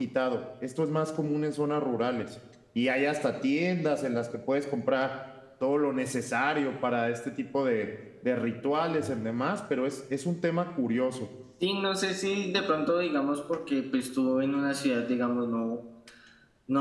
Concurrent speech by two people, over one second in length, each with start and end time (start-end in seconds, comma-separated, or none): none